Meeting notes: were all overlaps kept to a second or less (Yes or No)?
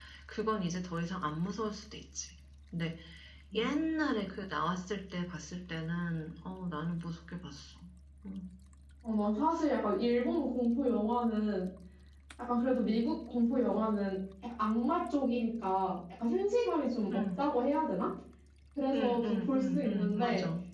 No